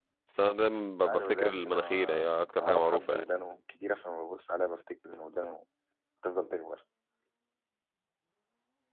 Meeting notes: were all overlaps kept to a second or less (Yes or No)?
No